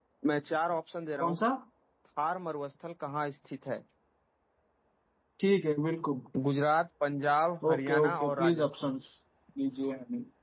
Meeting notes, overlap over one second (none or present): present